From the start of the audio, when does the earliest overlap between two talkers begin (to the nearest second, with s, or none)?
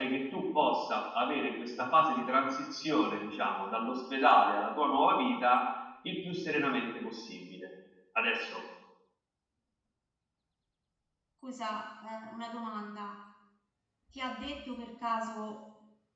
none